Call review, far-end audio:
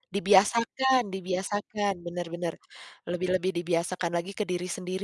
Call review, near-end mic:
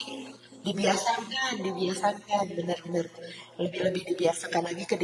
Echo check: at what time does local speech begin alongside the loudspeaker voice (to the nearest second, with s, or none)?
none